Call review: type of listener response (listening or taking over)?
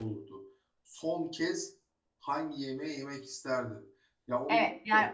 taking over